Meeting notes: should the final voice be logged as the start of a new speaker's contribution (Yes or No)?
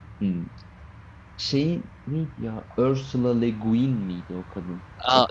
Yes